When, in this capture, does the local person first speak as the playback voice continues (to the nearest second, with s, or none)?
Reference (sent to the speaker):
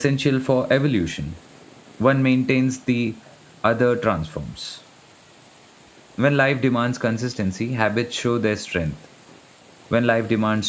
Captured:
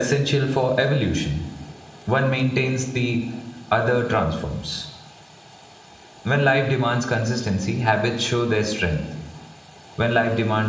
none